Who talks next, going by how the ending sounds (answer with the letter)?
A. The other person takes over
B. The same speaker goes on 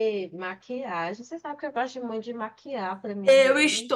A